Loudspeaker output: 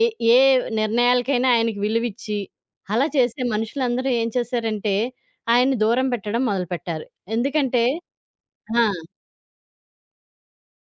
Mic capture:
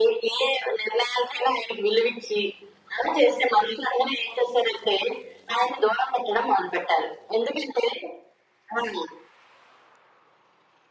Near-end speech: none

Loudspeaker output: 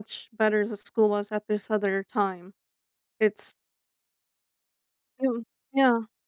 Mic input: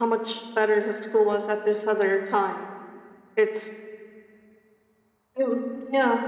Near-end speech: none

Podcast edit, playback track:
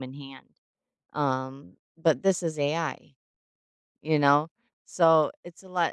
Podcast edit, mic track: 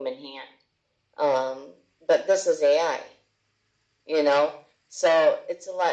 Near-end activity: none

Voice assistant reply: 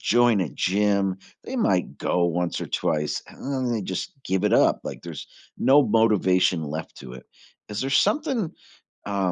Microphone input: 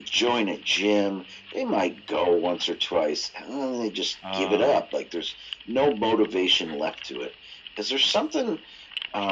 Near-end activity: present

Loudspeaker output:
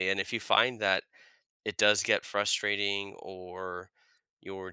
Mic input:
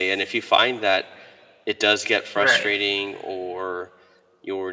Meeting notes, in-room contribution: present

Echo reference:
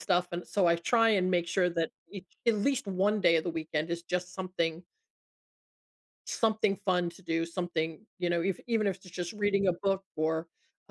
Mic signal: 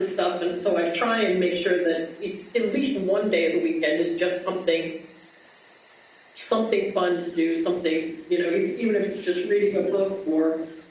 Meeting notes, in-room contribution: none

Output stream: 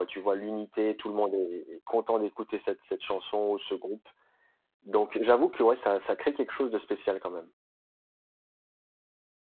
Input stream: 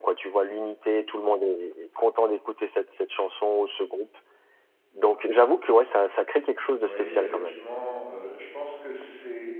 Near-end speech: present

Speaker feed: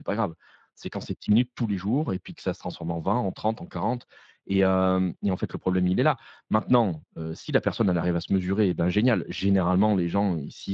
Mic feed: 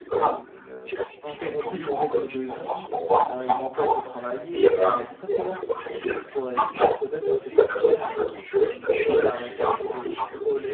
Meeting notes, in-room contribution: present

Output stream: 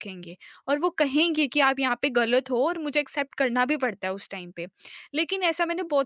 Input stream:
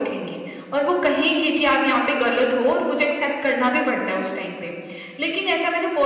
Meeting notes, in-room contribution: none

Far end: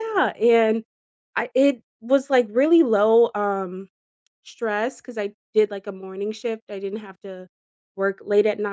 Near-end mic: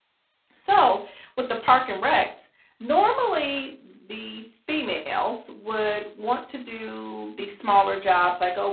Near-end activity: present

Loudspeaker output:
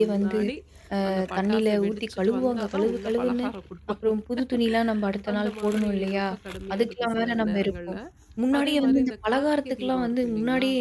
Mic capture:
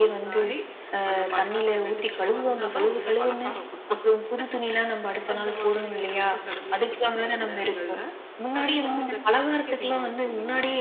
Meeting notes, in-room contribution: none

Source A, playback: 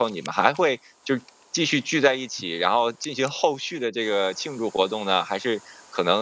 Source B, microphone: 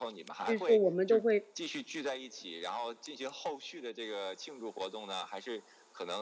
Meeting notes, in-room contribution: present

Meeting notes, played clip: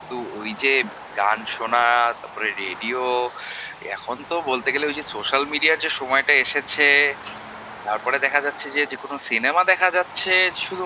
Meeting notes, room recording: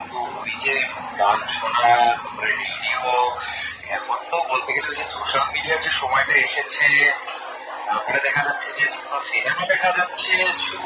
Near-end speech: none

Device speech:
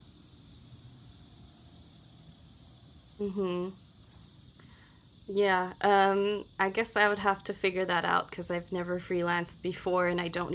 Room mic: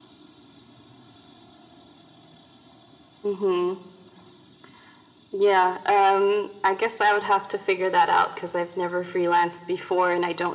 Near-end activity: none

